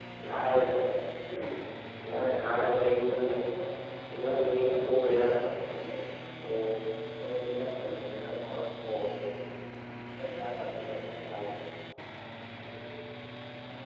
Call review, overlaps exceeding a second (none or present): present